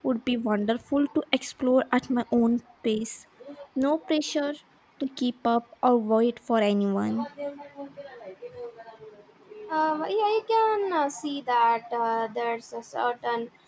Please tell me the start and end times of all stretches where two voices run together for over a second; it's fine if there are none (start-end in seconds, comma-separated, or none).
none